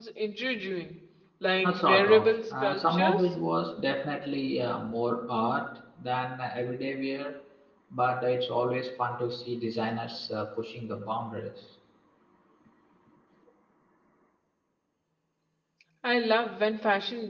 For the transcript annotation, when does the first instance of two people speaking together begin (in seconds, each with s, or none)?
1.6 s